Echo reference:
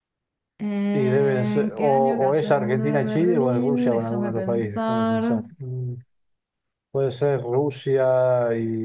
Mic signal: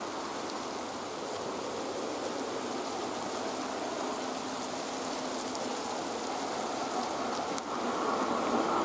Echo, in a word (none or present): none